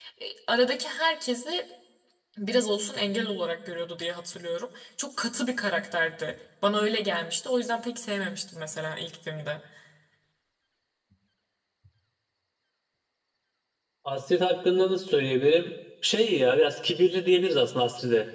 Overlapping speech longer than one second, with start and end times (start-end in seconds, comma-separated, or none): none